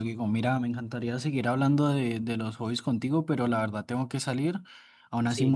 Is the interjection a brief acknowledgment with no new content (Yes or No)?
Yes